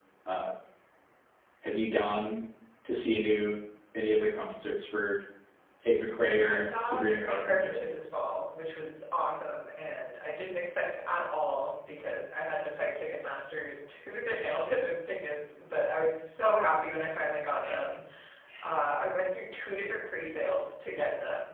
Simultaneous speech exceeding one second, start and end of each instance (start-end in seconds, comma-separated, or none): 6.5-7.8